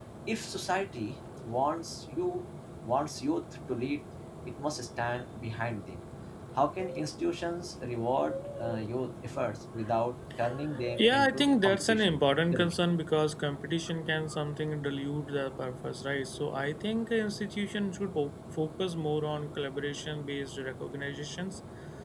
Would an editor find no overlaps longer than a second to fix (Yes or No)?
No